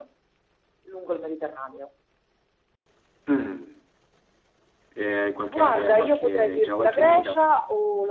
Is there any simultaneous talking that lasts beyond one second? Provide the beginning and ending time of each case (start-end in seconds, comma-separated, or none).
5.5-7.4